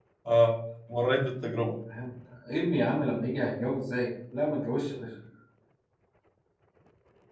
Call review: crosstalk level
none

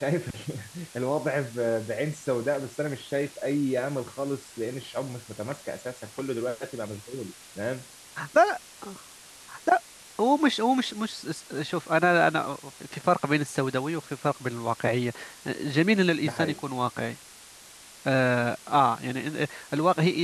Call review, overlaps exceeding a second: none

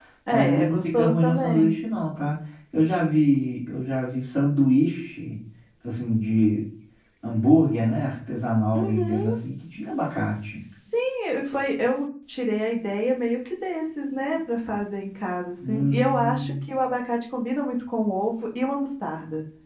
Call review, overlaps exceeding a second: present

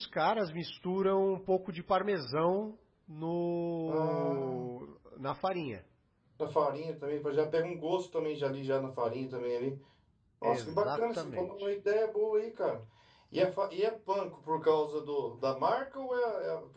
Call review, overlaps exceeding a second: present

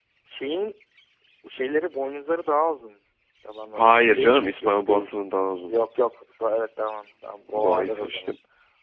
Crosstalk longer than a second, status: present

